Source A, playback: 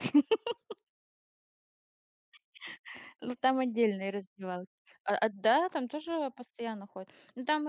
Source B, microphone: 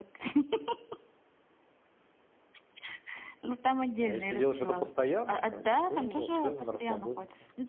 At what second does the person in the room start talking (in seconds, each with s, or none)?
4.0 s